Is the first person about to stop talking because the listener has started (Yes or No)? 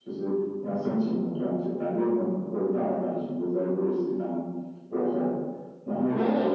No